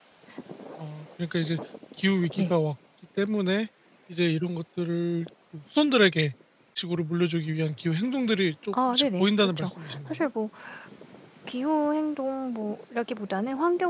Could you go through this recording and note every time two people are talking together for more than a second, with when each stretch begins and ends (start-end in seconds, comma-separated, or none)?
8.7-10.3